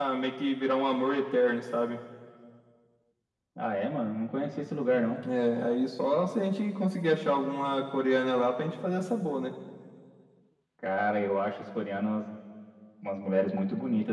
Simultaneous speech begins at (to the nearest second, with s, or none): none